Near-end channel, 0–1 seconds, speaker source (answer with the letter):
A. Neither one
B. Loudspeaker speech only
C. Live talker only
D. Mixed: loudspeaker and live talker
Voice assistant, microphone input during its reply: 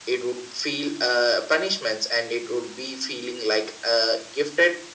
B